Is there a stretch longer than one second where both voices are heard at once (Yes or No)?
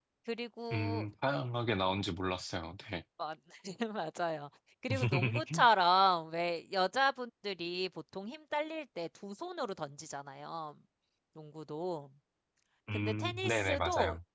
Yes